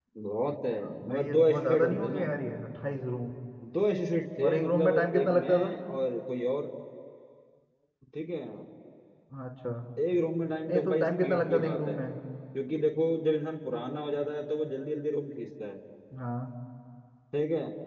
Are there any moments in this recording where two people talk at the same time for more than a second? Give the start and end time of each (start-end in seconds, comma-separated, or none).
1.0-2.3, 4.4-5.8, 10.7-12.0